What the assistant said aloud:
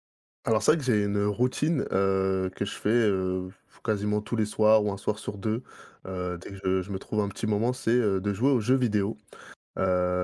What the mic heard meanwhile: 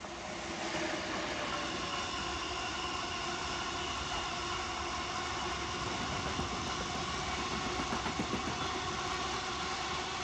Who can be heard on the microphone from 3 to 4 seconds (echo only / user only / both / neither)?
neither